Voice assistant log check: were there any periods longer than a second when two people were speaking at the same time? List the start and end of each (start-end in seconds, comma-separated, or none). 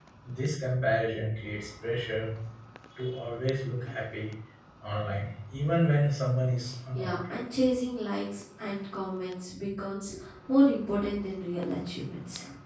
none